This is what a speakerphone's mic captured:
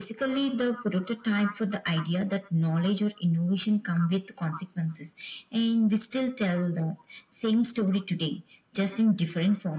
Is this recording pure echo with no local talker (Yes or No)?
Yes